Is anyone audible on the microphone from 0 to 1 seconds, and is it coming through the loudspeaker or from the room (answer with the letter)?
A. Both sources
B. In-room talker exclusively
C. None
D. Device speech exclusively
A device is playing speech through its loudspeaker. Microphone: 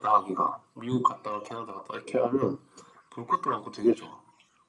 D